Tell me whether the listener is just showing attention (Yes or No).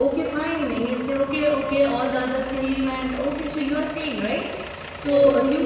Yes